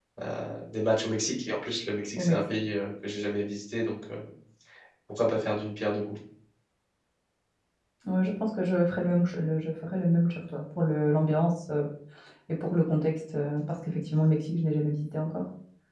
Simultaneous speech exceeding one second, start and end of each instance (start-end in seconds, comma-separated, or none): none